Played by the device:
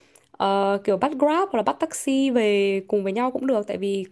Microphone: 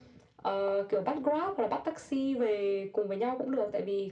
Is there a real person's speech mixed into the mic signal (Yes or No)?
No